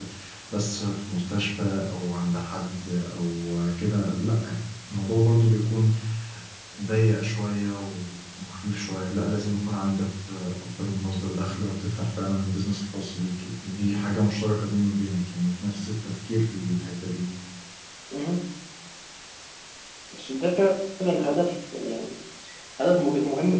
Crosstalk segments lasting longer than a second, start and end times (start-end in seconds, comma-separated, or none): none